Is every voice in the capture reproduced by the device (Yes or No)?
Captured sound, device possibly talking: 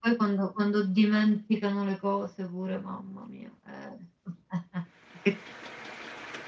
Yes